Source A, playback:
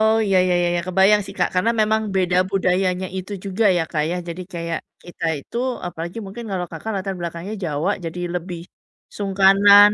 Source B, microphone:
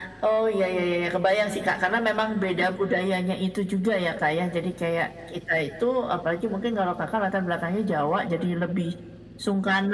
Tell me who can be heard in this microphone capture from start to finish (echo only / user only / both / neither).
echo only